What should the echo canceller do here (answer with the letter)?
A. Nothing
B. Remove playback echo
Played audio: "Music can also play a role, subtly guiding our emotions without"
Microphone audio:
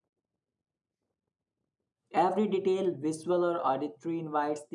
A